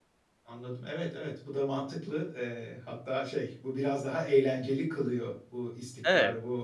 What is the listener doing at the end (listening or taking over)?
listening